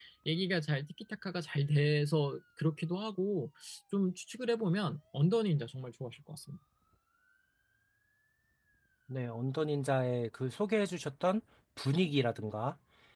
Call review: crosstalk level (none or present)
none